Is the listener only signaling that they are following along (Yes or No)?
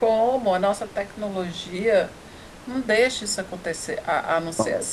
Yes